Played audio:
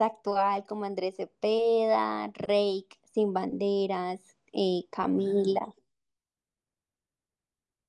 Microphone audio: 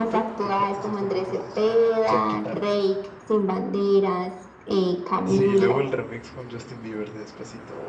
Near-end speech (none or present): present